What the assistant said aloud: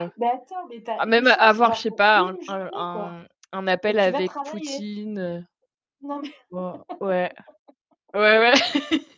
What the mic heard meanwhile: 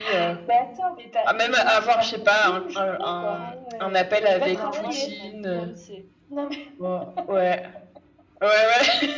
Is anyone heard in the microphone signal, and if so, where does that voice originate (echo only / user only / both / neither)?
both